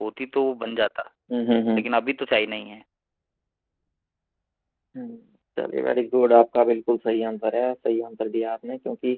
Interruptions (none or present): none